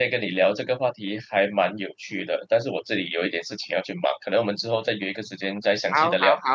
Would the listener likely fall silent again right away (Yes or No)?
No